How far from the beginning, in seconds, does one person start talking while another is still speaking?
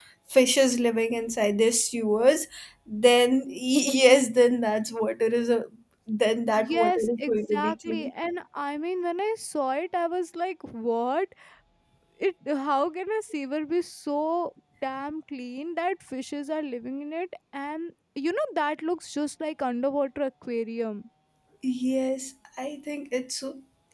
6.5 s

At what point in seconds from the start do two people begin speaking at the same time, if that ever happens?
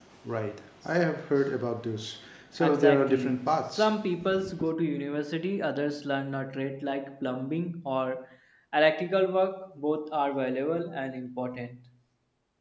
2.6 s

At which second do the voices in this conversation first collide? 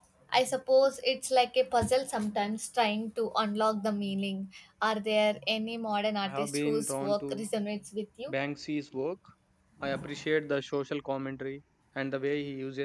6.2 s

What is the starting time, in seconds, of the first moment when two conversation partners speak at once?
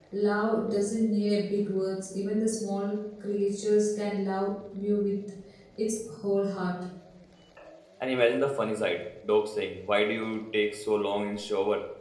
none

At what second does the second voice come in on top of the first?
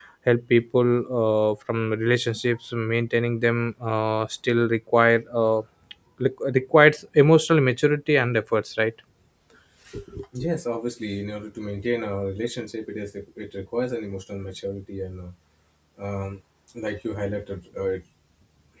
none

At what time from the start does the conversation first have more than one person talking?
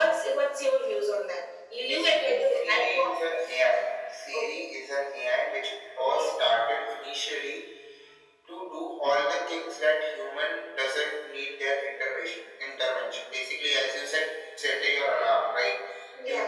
1.9 s

